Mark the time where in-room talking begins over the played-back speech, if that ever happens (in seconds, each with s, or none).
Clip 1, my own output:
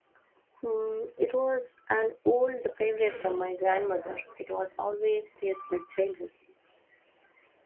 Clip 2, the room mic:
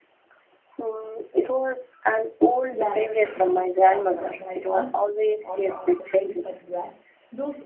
2.7 s